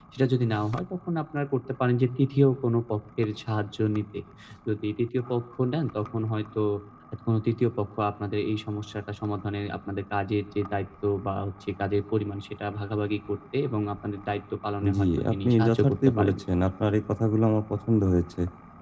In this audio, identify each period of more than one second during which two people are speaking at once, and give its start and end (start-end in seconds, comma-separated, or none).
15.0-16.4